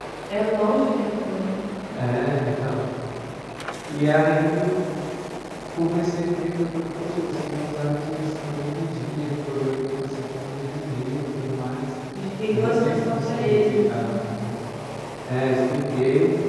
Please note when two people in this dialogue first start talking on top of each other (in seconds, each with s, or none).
12.6 s